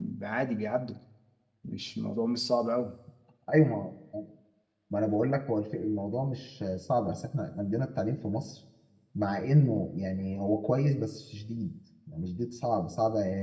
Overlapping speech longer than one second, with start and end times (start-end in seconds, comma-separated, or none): none